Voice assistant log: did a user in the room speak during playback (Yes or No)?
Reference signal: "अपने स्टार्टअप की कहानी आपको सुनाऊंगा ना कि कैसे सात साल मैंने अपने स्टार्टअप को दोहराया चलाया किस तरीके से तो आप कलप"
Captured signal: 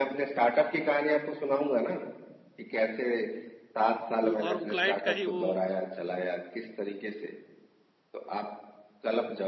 Yes